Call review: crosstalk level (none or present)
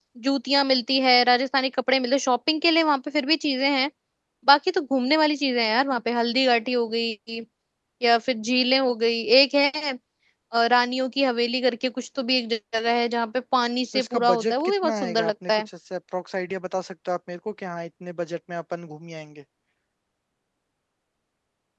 present